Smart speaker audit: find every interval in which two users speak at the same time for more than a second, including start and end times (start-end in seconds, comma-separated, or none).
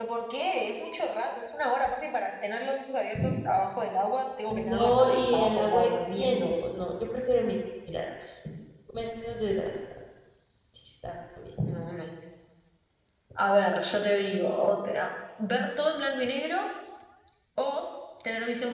4.5-6.5